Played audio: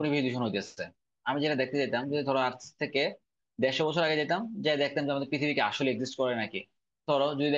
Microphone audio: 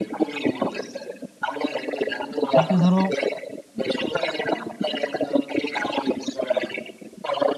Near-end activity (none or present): present